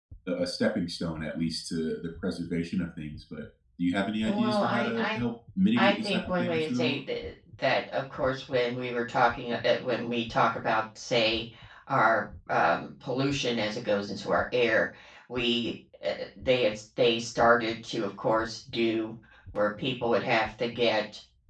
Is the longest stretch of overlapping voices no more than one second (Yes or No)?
No